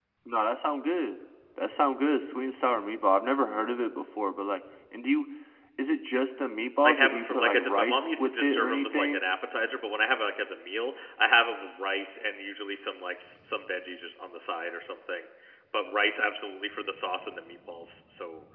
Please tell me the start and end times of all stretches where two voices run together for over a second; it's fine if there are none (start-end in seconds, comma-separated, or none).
6.8-9.2